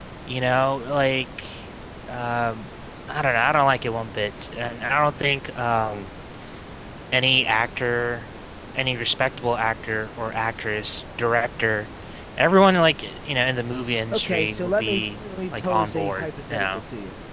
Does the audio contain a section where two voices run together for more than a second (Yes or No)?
Yes